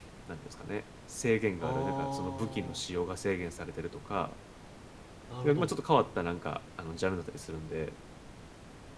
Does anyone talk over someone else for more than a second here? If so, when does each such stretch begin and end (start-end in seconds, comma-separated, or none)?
1.6-2.8